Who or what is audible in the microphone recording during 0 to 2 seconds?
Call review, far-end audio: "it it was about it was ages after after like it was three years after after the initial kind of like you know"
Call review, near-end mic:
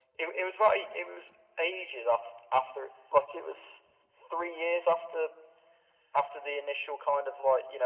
echo only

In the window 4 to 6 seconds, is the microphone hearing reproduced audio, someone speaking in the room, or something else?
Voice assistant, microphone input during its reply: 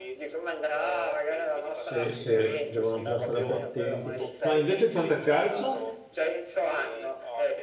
both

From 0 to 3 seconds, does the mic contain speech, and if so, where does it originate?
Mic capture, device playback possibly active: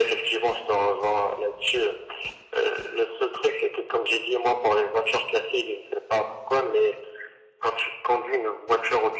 echo only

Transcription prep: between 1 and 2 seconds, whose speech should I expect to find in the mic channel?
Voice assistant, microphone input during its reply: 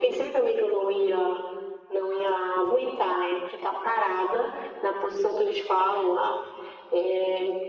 echo only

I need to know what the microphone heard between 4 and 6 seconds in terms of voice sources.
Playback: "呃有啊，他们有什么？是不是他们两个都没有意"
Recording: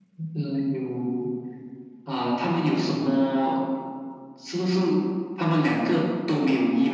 echo only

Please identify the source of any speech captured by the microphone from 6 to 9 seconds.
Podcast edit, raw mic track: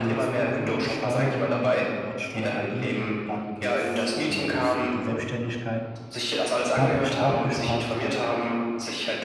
both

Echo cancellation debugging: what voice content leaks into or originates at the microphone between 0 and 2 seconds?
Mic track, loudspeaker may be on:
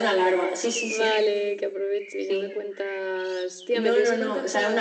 both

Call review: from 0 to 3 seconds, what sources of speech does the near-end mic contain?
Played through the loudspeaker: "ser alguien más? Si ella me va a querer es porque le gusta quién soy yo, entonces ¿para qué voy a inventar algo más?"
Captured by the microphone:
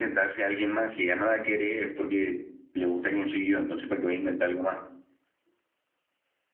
echo only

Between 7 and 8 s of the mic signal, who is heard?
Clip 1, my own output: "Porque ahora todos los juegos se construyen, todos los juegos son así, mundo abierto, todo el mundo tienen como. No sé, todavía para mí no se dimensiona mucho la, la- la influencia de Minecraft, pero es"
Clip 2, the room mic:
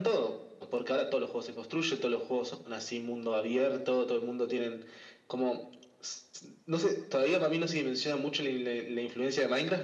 echo only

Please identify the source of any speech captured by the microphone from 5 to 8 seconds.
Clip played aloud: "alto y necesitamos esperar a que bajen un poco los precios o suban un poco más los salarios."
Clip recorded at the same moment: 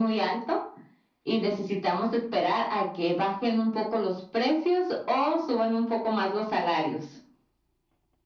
echo only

